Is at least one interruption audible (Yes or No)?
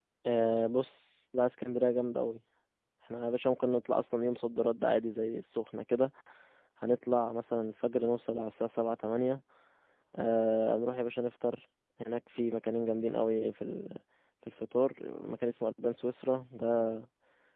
No